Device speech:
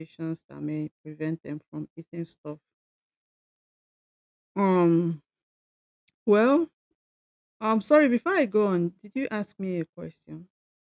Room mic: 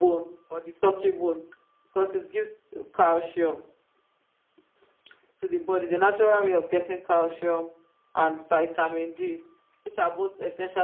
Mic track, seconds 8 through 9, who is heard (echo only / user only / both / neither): user only